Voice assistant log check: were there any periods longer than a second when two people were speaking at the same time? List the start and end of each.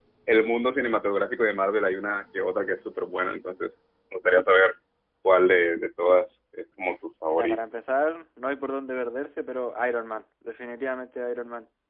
none

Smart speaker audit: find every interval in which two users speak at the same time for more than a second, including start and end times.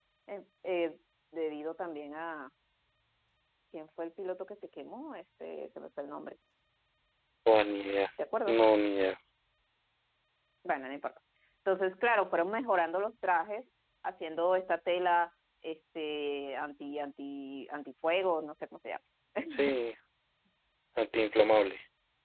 none

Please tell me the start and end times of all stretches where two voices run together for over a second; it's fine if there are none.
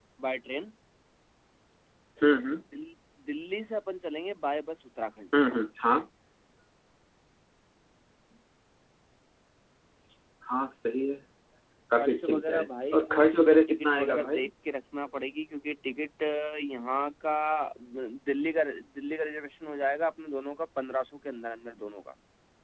12.0-14.5

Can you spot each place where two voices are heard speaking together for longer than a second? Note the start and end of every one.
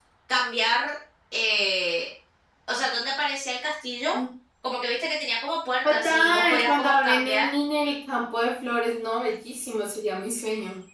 5.9-7.5

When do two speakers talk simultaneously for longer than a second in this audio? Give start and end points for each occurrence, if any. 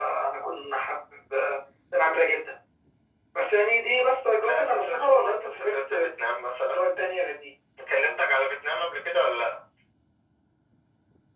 4.4-6.1

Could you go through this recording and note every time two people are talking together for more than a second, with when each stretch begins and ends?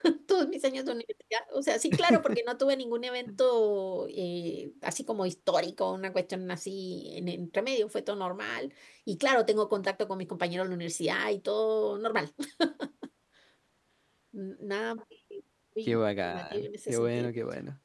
15.9-17.3

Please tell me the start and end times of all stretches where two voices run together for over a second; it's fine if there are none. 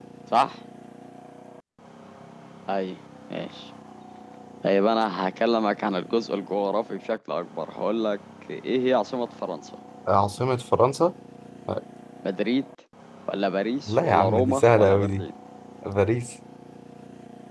13.9-15.3

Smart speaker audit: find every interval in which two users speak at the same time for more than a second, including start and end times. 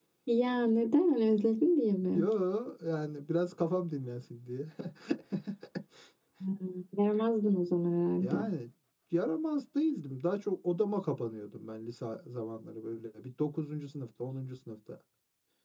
none

